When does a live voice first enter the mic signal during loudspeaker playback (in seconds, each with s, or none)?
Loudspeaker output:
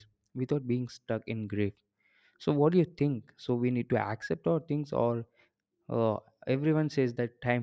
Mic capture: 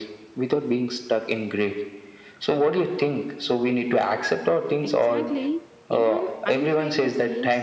4.8 s